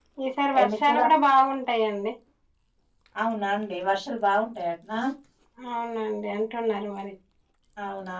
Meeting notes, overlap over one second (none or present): none